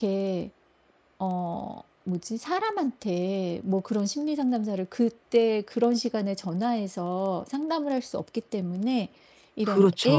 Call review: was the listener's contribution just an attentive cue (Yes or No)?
Yes